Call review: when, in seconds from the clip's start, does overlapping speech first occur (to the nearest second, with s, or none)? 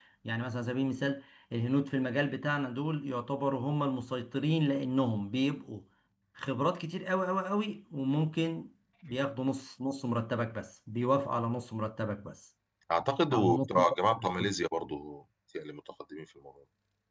13 s